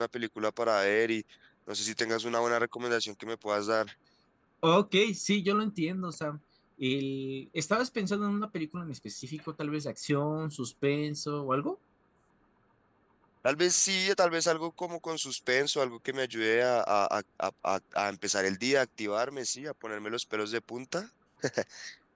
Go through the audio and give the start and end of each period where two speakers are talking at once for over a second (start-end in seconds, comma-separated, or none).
none